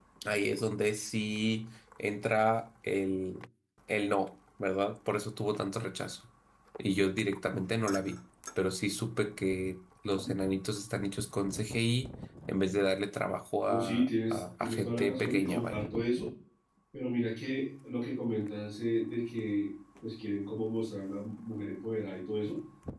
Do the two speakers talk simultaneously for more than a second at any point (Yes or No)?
Yes